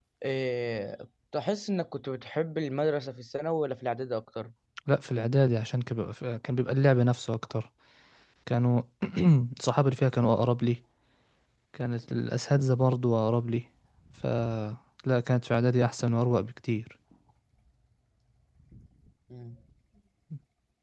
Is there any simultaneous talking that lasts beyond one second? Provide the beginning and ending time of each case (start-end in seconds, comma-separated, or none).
none